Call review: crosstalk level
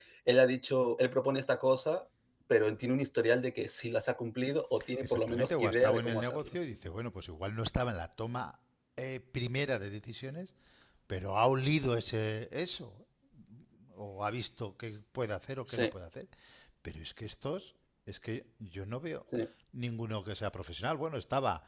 present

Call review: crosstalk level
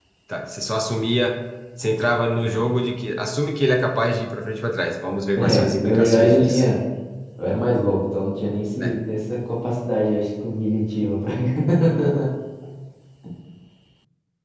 present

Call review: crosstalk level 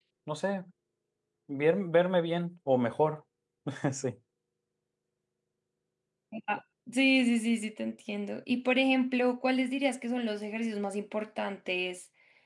none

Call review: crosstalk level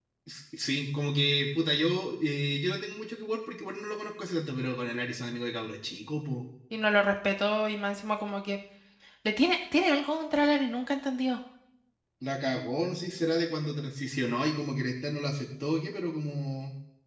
none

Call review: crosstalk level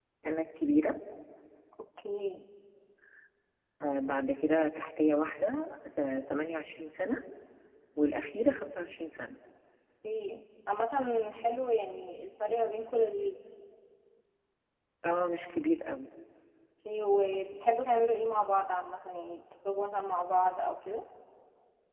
none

